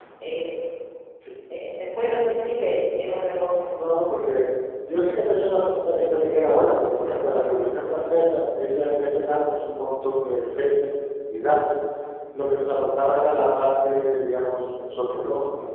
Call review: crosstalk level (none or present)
none